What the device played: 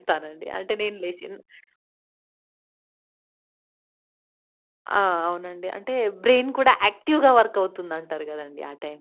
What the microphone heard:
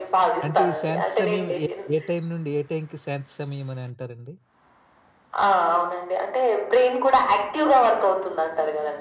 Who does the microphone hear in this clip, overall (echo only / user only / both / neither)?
both